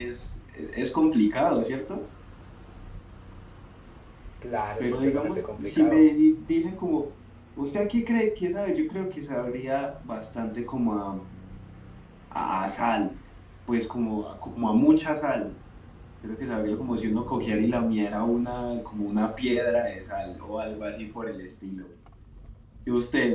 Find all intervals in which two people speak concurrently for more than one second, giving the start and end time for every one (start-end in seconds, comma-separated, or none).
4.8-6.0